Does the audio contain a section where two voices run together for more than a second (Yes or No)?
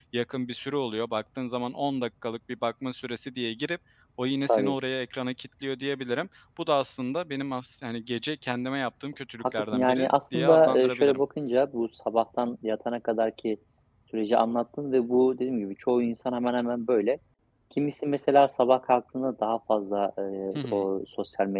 Yes